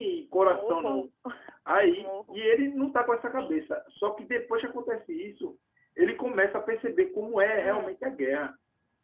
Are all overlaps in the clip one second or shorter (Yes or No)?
Yes